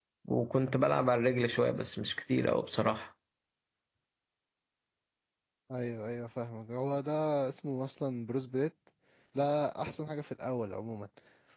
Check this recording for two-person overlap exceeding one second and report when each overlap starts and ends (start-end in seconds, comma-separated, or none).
none